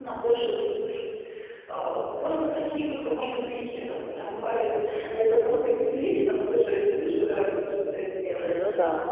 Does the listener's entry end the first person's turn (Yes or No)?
No